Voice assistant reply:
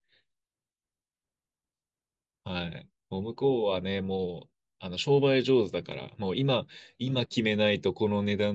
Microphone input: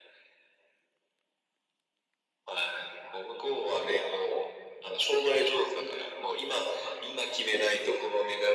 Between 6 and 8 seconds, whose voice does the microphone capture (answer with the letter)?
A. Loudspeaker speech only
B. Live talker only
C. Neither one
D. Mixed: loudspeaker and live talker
A